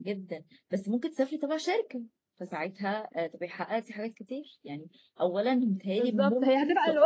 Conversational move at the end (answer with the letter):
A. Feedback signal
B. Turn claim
B